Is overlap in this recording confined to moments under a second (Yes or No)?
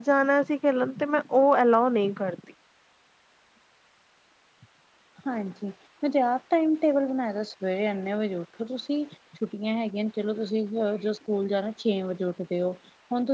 Yes